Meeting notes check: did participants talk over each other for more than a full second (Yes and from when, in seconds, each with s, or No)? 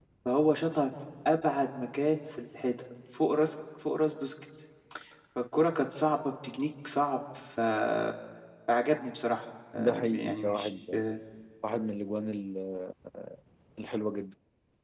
Yes, from 9.8 s